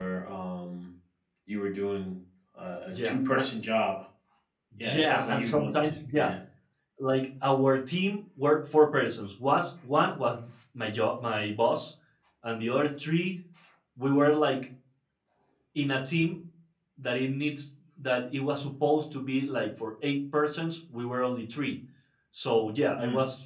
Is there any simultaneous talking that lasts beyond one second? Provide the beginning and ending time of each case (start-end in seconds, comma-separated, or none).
4.8-6.3